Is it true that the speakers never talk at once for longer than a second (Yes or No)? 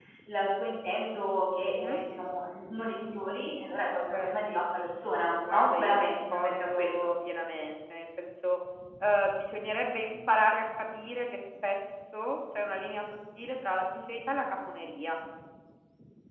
No